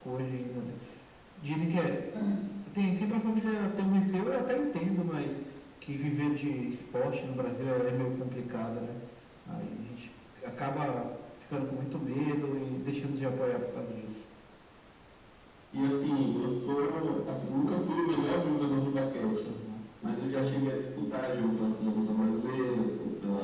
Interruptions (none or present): none